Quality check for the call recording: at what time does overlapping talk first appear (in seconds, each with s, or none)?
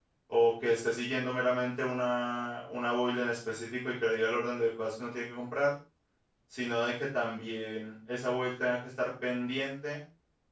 none